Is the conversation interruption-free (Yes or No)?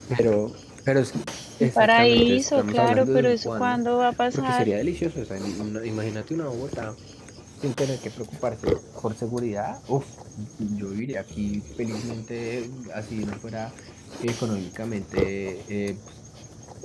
No